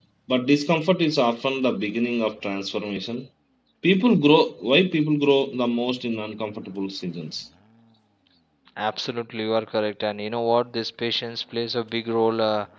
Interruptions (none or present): none